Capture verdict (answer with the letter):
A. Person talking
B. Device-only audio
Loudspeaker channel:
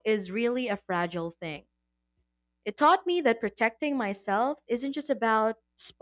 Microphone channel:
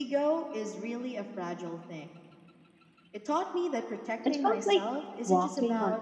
A